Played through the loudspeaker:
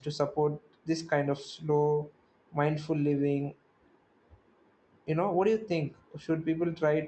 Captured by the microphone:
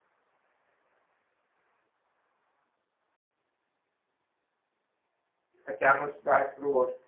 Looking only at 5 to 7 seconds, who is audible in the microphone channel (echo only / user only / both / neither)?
user only